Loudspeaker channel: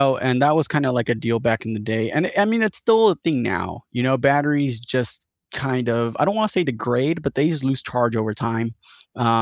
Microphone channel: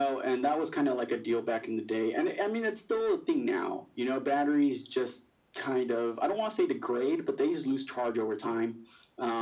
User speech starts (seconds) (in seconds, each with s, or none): none